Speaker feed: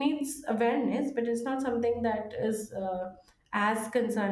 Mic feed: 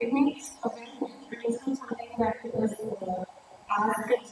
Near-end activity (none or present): none